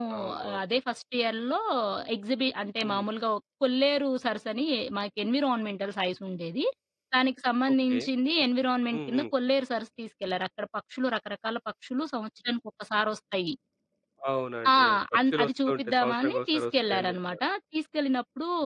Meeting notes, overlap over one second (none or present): present